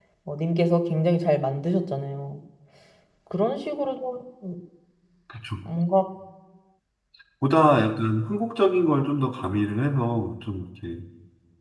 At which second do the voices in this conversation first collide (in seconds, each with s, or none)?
none